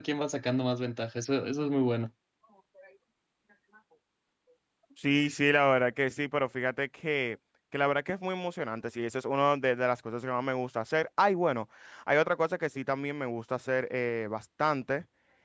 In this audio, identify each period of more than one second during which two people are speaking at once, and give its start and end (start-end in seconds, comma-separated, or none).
none